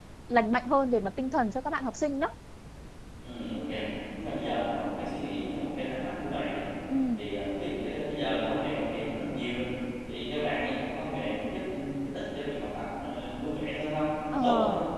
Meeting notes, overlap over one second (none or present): none